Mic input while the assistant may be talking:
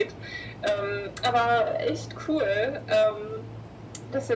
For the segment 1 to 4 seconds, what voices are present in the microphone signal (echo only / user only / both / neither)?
echo only